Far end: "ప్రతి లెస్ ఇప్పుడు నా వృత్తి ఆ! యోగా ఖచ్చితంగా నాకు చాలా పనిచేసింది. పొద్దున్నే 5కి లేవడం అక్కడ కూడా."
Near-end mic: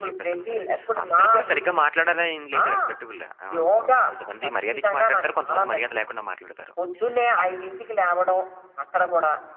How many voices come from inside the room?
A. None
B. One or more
B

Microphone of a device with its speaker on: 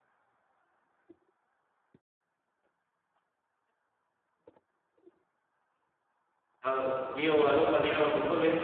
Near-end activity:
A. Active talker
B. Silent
A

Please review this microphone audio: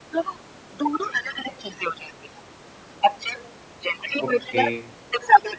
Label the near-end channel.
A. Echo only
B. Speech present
B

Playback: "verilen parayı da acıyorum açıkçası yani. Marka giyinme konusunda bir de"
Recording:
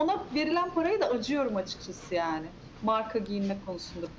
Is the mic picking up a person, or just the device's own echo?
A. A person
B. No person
B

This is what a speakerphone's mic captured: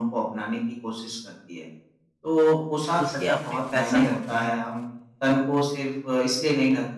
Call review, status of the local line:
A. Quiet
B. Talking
B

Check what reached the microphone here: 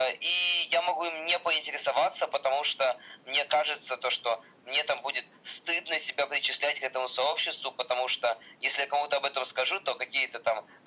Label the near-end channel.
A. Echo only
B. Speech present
A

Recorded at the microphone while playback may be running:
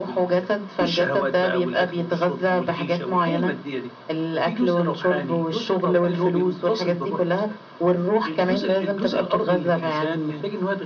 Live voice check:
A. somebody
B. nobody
B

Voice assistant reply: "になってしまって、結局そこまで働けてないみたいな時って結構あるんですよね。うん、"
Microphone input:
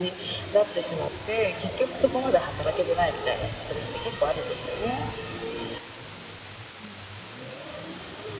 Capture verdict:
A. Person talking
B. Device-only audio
B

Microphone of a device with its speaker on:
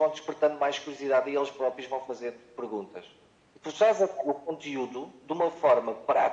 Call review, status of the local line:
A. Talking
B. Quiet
B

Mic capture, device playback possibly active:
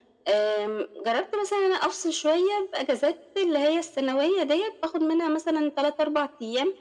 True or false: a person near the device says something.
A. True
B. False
B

